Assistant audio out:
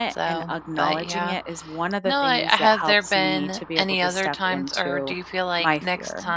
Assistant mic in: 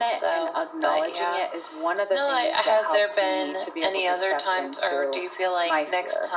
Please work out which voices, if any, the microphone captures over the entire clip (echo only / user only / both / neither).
echo only